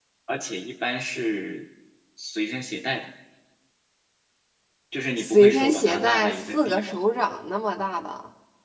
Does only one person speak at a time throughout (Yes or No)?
No